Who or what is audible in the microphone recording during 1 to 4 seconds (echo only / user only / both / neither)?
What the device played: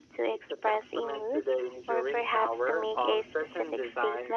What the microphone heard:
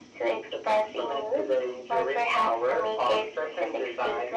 echo only